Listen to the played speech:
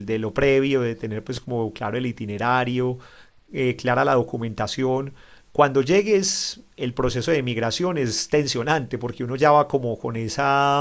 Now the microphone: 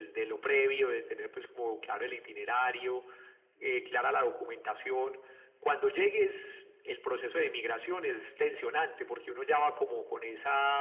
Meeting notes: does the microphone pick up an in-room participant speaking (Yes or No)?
No